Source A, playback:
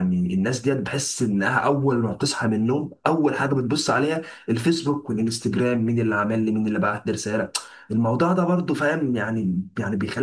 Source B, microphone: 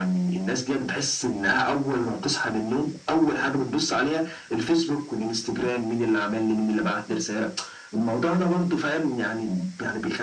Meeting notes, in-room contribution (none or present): none